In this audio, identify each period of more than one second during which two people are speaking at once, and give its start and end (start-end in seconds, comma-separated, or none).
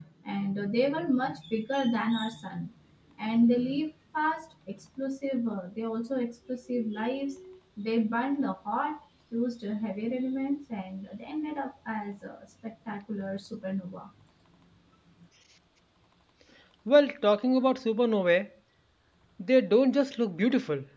none